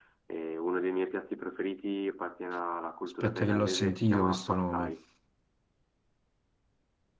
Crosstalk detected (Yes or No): Yes